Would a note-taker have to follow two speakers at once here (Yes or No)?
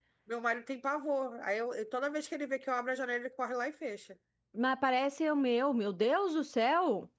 No